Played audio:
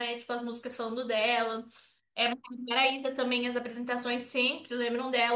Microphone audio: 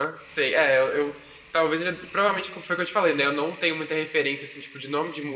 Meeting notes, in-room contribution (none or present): present